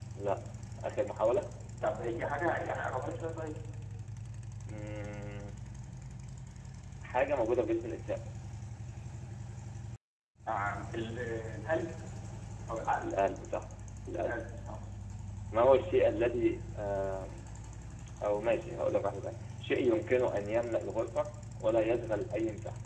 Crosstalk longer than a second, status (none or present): none